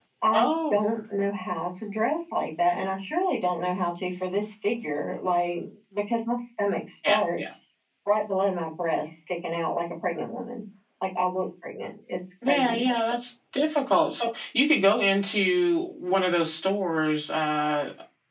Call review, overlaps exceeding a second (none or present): none